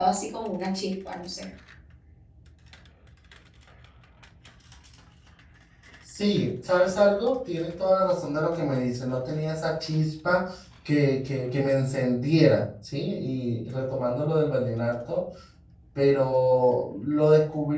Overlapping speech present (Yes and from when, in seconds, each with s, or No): No